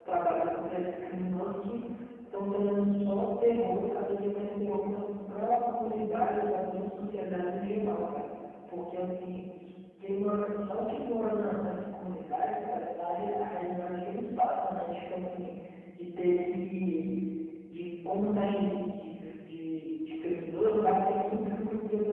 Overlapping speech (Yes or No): No